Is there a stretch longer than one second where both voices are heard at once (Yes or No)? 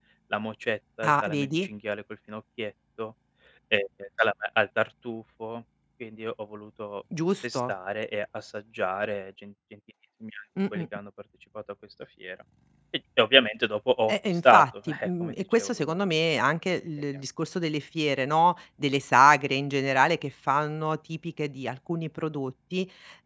Yes